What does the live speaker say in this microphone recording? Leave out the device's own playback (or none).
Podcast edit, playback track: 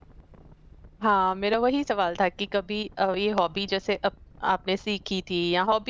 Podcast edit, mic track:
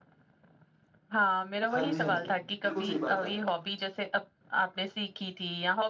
हाँ जी, हाँ जी। बिल्कुल सही बात है।